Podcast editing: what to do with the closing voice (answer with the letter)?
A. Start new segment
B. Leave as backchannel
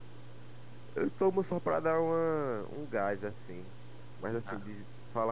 B